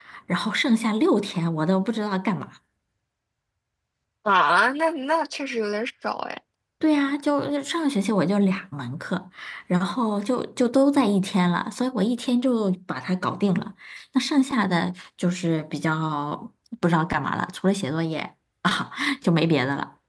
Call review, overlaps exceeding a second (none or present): none